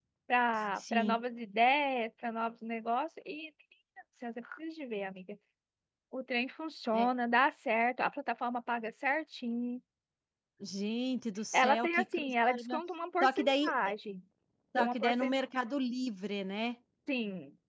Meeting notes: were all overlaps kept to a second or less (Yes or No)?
No